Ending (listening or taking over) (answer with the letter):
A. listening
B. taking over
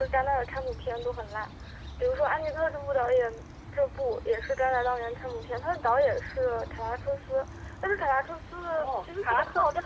B